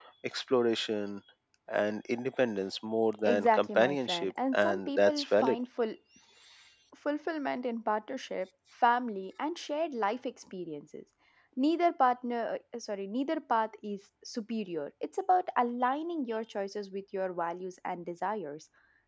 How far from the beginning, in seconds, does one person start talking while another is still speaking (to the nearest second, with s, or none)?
3 s